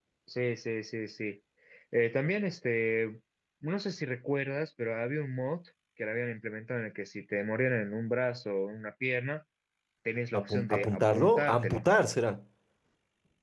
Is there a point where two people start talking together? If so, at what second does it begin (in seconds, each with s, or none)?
10.4 s